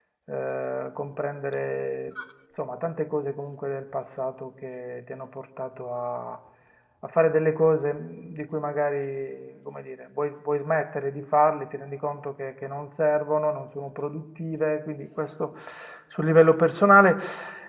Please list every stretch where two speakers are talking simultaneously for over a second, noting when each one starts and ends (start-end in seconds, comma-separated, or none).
none